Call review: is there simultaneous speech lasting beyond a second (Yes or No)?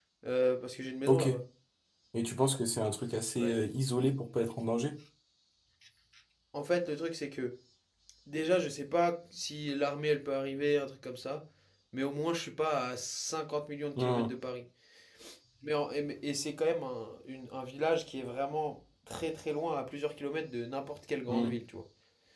No